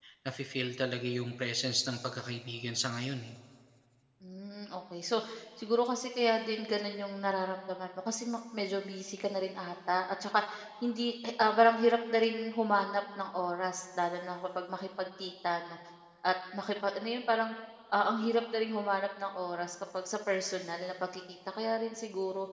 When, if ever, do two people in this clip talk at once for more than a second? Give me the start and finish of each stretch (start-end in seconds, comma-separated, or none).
none